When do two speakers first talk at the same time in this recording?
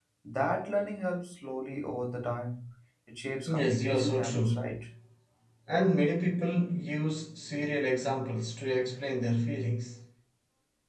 3.5 s

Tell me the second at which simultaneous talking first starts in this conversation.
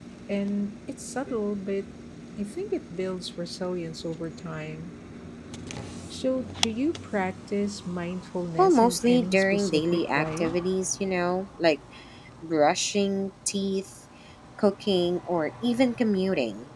8.6 s

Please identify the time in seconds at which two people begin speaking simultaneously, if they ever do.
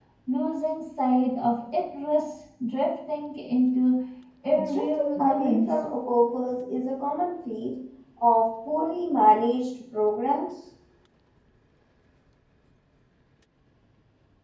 4.5 s

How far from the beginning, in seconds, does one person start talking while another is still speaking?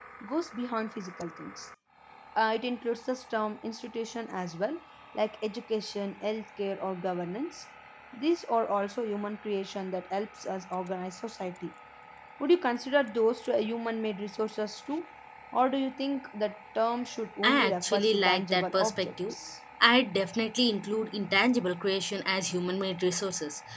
17.4 s

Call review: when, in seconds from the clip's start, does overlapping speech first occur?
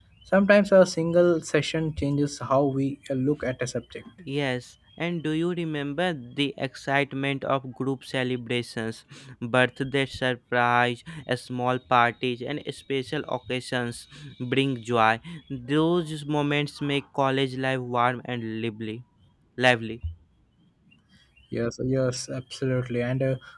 none

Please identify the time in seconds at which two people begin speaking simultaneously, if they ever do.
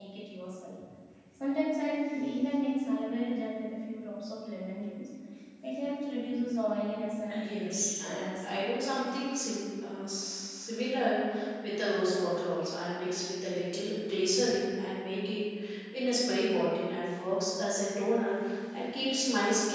7.3 s

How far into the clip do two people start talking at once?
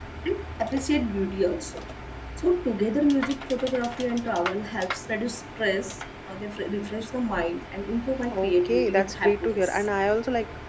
8.3 s

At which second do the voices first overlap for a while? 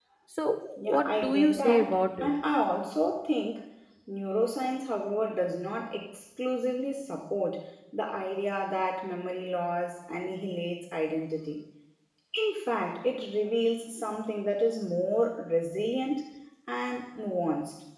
0.8 s

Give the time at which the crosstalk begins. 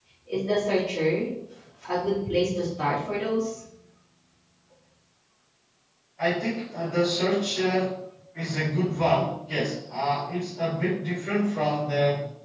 none

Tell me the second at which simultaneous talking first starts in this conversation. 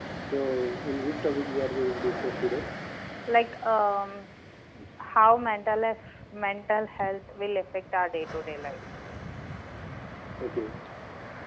none

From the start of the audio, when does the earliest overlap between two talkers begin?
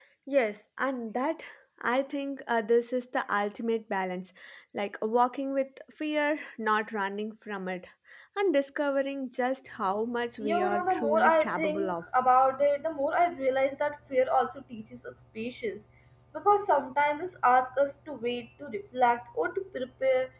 10.4 s

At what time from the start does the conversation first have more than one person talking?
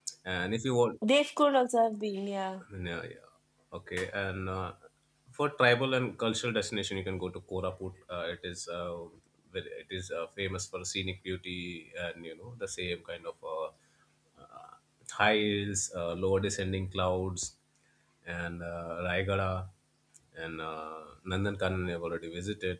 none

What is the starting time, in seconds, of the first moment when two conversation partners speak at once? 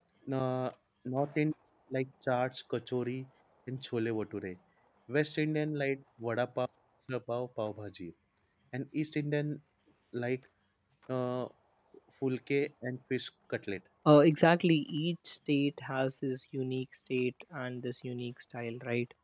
none

